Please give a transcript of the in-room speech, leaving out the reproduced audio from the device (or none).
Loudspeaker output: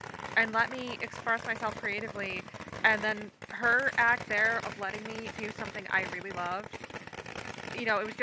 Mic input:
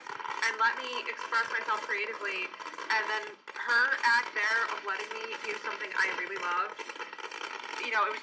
none